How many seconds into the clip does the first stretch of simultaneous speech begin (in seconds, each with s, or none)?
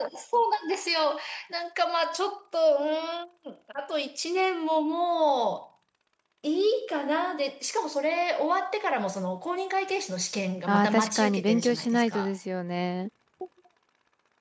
10.7 s